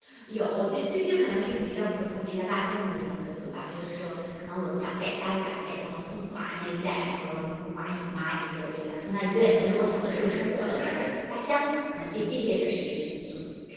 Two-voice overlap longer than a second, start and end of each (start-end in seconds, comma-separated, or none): 9.6-11.0